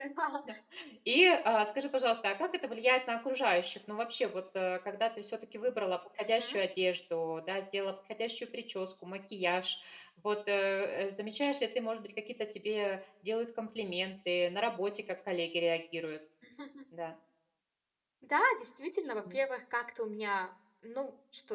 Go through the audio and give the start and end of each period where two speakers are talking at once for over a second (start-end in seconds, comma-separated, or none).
none